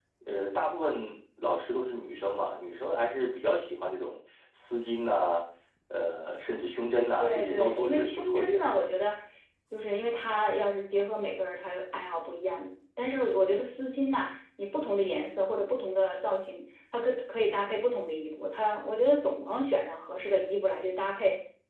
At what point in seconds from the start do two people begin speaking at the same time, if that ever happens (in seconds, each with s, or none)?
7.2 s